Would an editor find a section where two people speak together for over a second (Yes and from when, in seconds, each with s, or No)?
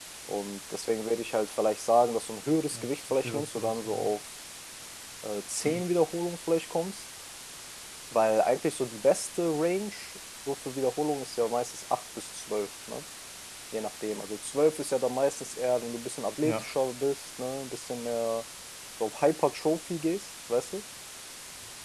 Yes, from 2.7 s